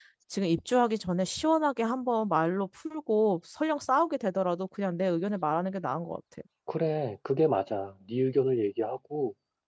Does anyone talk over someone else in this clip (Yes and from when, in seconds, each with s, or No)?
No